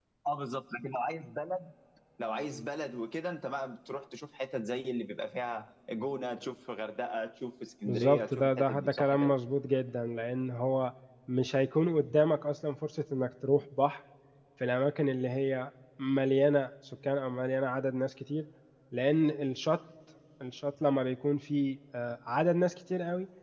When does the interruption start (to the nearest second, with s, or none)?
8 s